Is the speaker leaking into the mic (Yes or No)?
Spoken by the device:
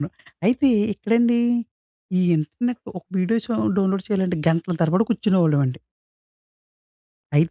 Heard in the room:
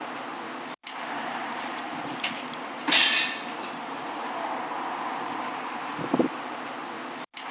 No